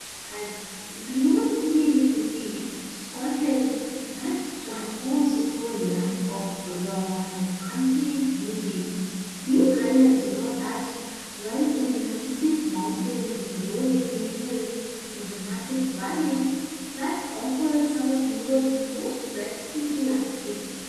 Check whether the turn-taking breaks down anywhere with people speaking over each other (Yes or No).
No